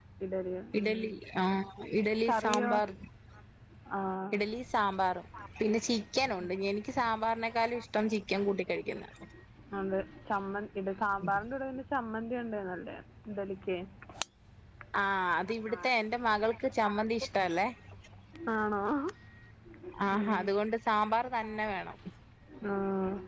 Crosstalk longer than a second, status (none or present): none